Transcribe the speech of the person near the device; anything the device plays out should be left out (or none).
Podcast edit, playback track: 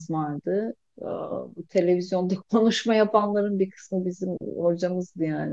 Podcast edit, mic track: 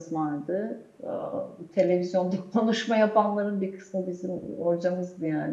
none